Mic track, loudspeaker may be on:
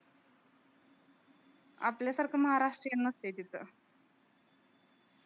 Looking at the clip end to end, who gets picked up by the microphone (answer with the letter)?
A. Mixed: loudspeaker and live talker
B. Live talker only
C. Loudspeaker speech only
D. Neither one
B